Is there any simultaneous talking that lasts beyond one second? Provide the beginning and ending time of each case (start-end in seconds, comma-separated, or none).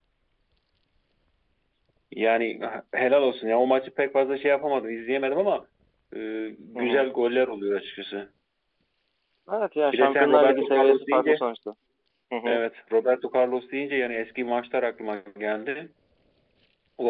9.9-11.4